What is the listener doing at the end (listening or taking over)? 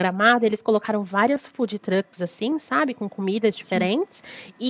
listening